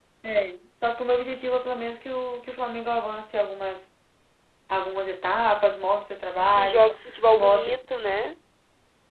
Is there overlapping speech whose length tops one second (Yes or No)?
No